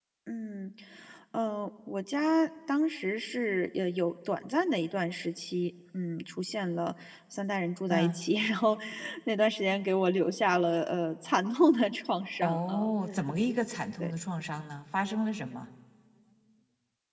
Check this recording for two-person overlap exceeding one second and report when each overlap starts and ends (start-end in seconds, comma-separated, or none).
none